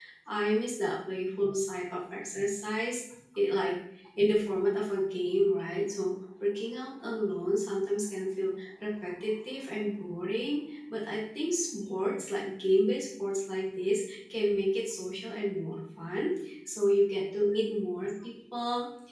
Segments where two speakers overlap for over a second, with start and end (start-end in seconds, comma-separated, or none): none